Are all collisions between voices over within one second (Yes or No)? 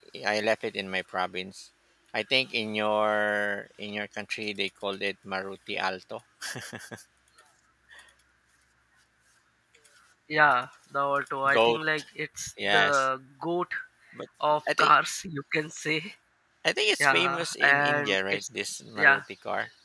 No